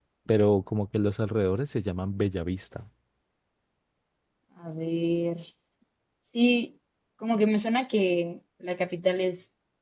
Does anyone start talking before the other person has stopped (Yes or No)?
No